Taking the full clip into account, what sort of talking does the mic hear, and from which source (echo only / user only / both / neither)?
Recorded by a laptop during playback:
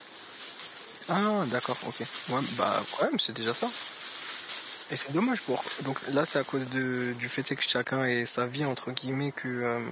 user only